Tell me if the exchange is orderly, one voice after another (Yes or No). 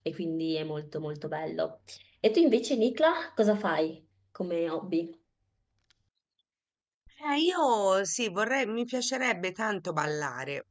Yes